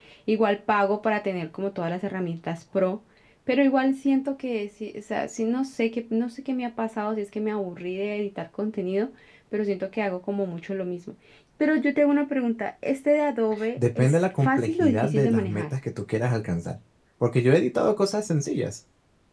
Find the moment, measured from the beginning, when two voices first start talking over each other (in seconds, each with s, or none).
13.5 s